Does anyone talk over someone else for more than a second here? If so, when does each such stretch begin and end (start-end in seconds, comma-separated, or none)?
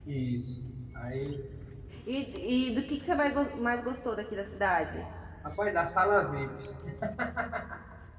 none